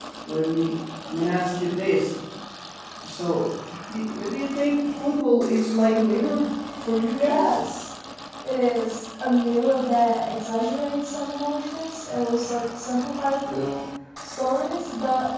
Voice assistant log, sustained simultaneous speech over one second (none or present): none